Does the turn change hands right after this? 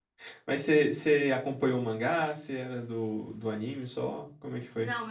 Yes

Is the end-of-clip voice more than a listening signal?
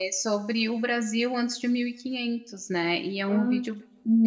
No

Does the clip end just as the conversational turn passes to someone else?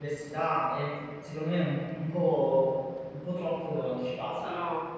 Yes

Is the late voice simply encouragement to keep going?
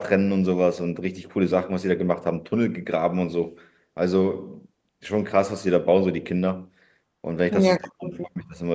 Yes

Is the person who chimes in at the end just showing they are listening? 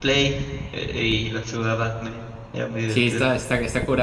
No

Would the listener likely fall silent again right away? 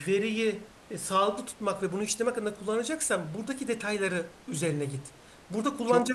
Yes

